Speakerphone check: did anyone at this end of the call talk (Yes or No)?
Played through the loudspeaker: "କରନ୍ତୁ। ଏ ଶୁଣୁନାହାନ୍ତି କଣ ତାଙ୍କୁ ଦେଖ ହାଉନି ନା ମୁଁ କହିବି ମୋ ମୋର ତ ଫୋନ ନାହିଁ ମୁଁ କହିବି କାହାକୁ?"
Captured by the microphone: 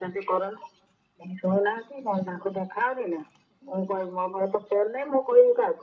No